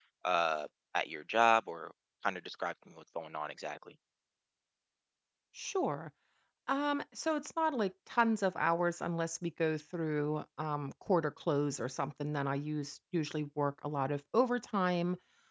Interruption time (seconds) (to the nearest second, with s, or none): none